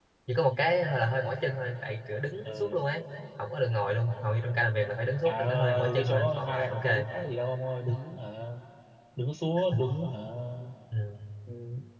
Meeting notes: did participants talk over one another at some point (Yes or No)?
Yes